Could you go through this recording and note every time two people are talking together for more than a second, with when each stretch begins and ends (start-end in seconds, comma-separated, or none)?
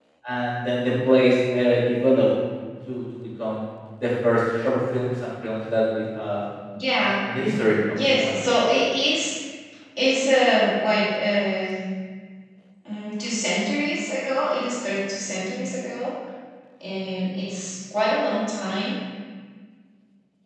none